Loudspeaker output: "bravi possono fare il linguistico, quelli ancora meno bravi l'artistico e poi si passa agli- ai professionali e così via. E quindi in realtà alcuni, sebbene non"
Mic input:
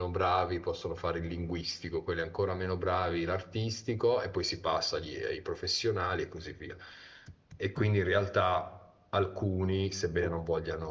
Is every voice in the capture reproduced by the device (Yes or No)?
Yes